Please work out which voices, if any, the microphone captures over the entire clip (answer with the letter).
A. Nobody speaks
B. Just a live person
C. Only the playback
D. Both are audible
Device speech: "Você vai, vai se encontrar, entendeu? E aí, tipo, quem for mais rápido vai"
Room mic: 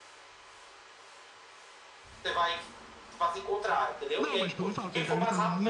D